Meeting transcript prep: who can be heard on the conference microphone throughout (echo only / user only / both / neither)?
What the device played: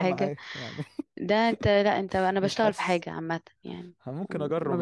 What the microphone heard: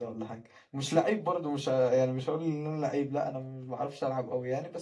user only